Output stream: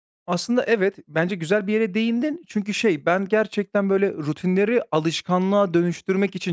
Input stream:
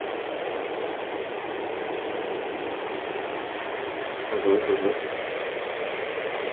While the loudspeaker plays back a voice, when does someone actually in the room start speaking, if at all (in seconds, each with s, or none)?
4.3 s